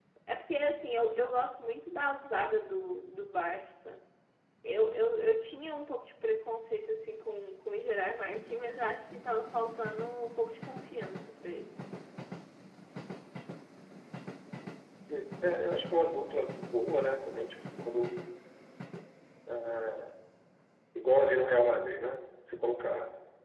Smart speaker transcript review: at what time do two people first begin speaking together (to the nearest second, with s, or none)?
none